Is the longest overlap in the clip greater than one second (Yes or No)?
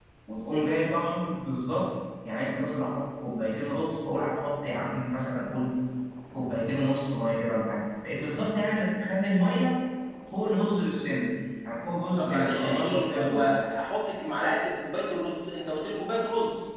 Yes